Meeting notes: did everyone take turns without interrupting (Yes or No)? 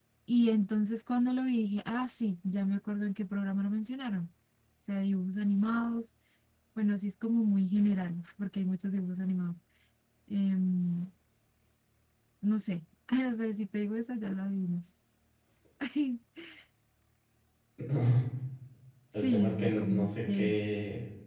No